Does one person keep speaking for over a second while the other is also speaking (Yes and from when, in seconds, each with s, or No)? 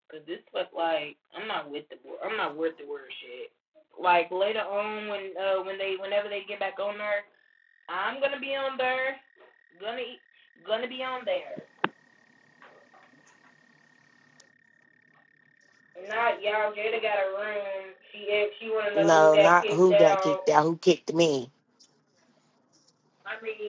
Yes, from 19.0 s